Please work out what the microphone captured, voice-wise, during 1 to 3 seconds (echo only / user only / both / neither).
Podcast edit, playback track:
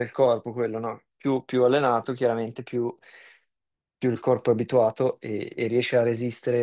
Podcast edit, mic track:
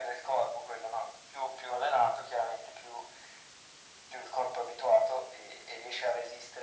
echo only